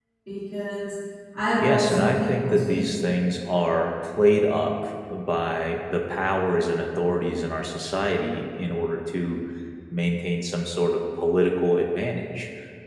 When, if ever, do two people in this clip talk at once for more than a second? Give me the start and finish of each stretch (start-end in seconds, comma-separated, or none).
1.6-3.1